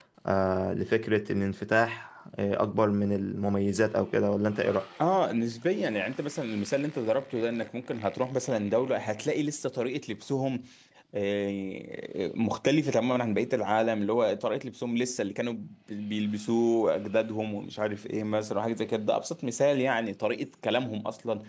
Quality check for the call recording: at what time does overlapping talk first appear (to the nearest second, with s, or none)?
none